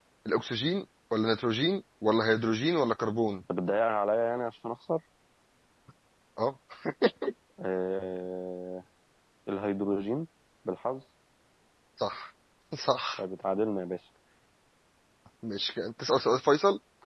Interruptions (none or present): none